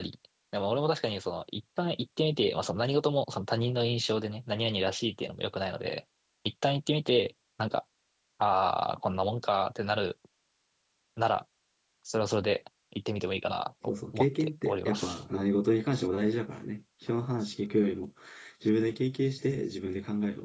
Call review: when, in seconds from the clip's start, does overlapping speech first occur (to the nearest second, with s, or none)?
14 s